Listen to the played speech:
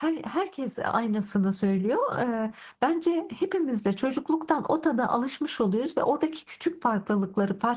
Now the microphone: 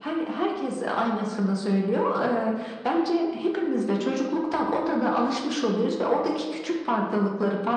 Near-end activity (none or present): none